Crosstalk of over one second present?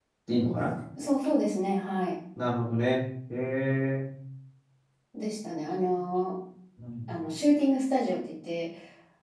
No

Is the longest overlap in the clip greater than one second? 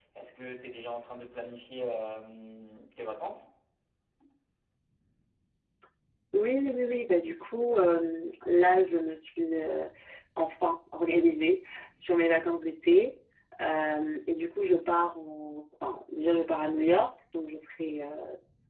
No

